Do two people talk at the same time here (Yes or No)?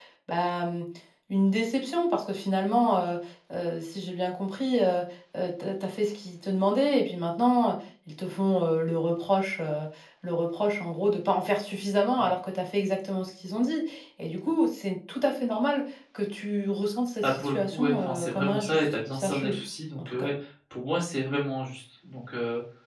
Yes